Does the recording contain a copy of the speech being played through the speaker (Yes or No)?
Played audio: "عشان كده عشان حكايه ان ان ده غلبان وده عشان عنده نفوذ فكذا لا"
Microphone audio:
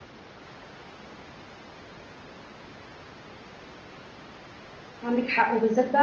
No